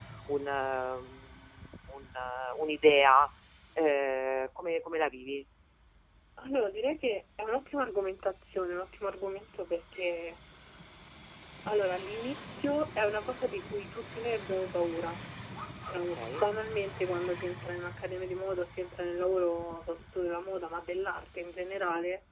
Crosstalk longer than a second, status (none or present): none